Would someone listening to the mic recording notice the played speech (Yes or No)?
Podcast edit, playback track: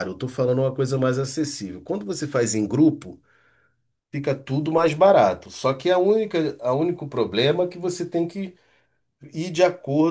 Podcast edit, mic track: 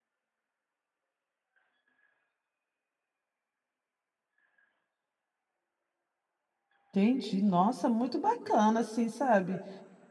No